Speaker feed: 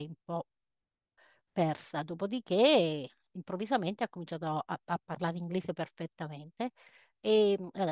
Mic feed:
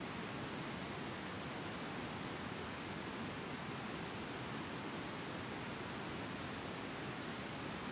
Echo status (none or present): none